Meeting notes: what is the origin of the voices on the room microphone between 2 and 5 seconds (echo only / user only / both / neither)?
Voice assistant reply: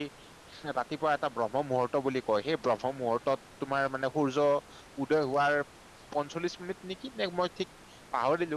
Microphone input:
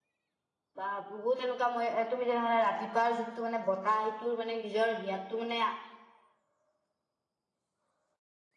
user only